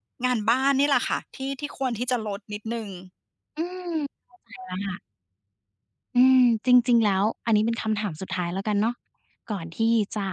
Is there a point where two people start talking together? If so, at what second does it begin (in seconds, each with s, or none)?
none